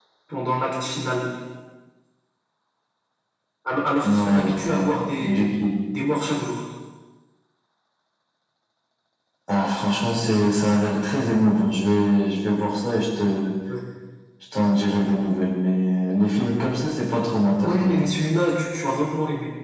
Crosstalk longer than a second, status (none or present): present